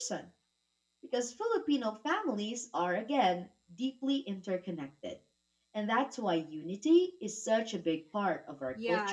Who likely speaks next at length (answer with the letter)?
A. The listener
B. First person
A